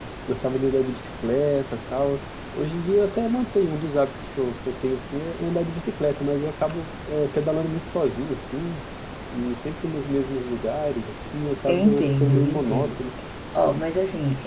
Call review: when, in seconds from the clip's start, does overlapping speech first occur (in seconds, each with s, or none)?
11.7 s